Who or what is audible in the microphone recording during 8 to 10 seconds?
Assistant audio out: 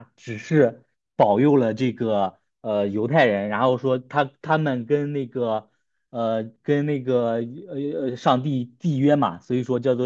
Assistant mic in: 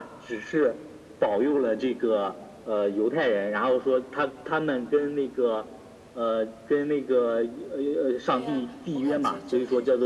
both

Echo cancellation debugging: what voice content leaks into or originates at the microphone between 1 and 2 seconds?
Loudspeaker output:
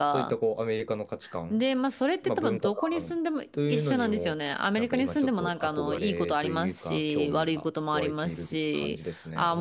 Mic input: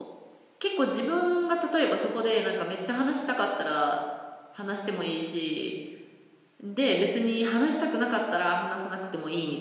user only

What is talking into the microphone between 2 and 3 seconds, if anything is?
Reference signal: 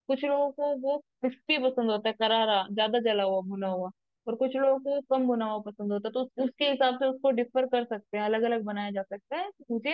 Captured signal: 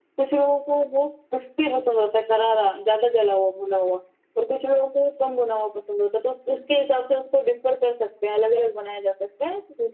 echo only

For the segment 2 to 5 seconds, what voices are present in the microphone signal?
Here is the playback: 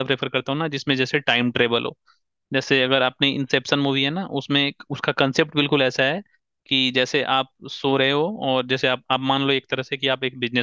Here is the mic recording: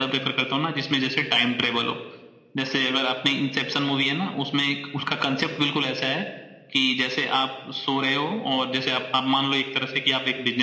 echo only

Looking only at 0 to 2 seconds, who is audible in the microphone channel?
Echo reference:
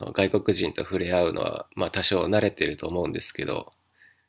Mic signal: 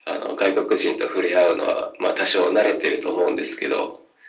echo only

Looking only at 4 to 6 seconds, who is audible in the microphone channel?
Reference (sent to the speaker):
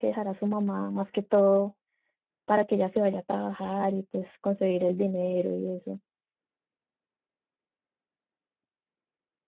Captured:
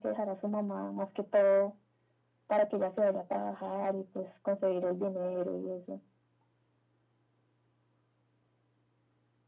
echo only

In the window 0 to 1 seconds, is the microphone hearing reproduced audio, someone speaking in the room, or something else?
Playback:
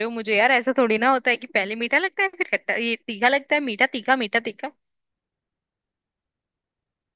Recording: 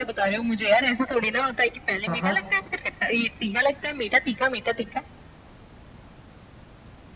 echo only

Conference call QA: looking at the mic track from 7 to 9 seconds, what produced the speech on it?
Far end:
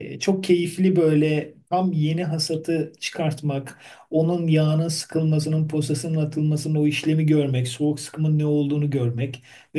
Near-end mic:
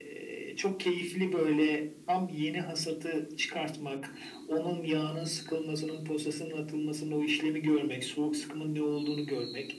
echo only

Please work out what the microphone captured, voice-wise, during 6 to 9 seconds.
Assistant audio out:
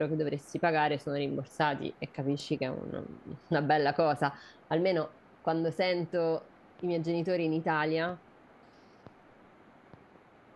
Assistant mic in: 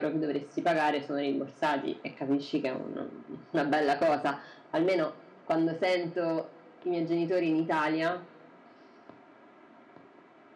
echo only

